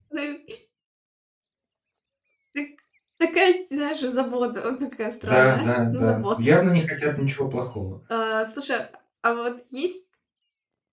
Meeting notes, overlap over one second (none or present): present